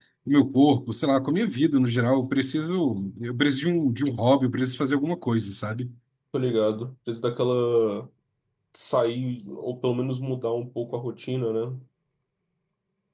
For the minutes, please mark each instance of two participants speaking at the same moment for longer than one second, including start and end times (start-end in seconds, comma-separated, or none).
none